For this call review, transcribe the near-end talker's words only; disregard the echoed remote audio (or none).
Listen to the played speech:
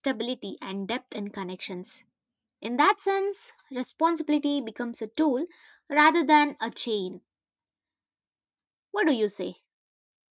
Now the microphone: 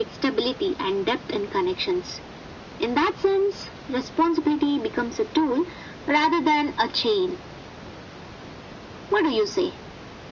none